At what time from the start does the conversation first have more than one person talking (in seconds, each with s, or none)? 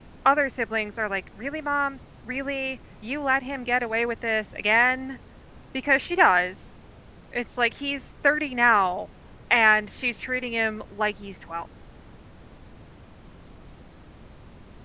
none